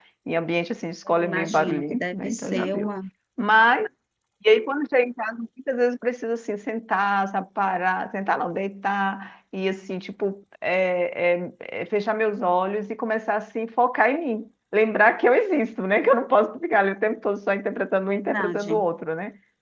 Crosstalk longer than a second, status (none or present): present